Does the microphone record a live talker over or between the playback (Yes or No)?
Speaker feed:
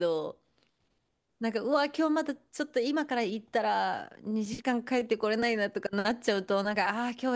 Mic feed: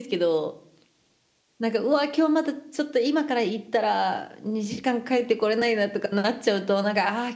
No